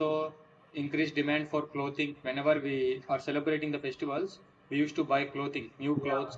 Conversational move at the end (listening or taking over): taking over